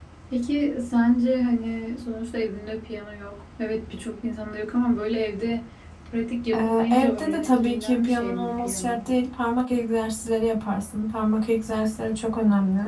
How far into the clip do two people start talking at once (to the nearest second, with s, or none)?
7 s